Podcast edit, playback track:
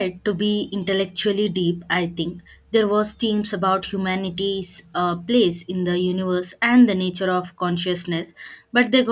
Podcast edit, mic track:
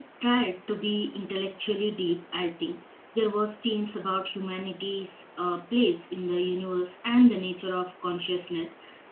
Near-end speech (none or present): none